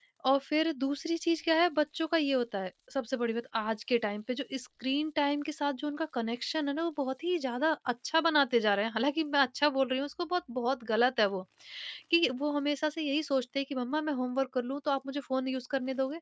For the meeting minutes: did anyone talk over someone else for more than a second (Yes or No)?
No